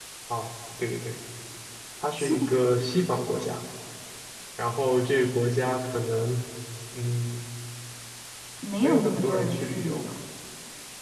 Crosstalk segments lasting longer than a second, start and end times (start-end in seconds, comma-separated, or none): 8.8-10.0